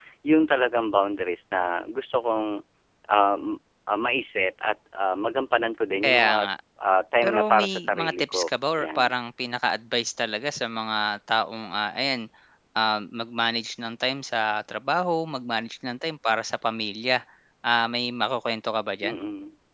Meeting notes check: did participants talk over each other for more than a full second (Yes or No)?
Yes